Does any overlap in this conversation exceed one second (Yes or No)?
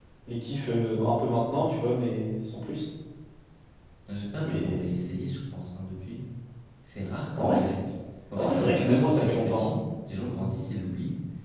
Yes